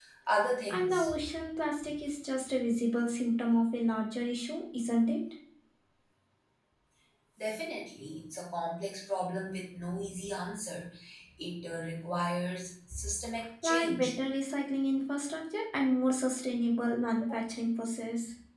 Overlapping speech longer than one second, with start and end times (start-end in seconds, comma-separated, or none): none